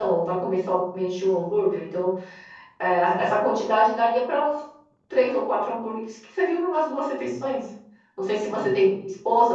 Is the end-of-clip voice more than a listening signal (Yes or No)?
No